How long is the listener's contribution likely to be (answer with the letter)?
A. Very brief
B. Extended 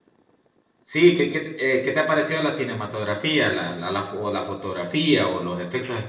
B